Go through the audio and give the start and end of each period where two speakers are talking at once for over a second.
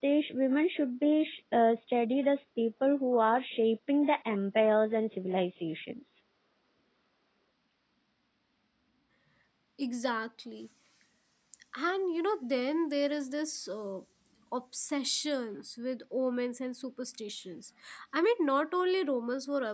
none

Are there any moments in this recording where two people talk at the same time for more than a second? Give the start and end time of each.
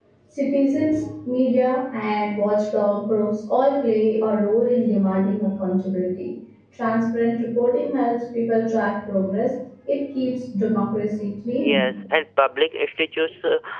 none

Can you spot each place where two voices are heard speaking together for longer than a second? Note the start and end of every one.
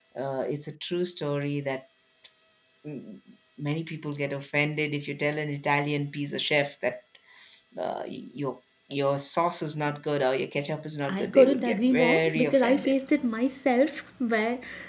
11.1-12.9

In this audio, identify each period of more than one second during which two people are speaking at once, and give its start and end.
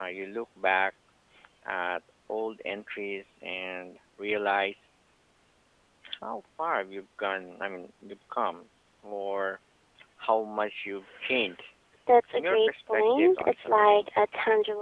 12.3-14.1

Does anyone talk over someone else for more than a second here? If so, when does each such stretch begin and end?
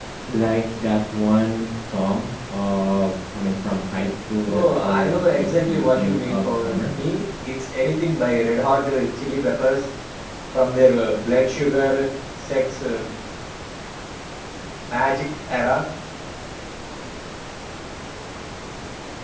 4.5-6.9

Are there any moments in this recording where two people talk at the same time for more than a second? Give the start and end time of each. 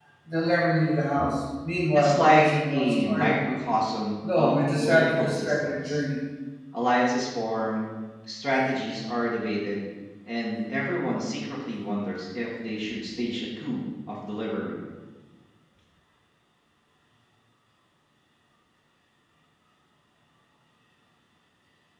1.9-3.4, 4.3-6.0

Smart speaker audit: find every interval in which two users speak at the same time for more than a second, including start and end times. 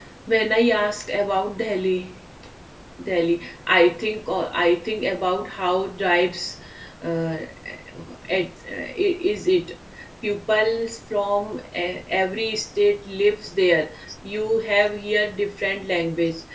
none

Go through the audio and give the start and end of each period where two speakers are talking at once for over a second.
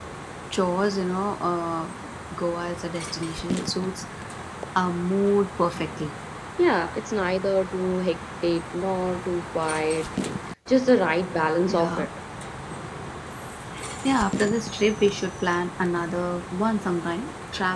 none

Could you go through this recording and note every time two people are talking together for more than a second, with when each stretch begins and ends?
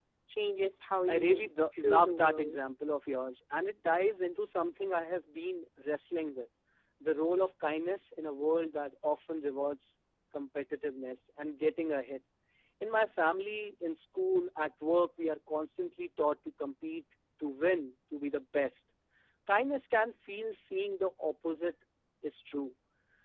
1.1-2.6

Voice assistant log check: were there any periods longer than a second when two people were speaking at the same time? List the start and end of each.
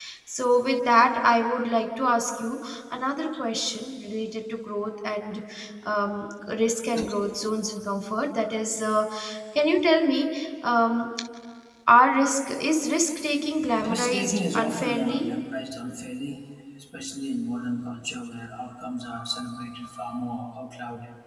13.7-15.2

